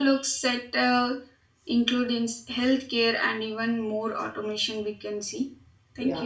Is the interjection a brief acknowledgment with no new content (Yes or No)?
No